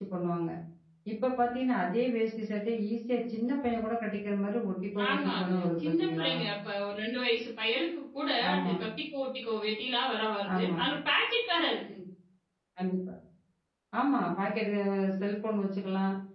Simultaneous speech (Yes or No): Yes